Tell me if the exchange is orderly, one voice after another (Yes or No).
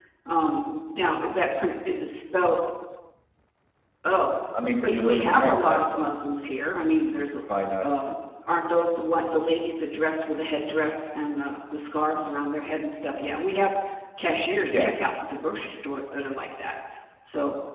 No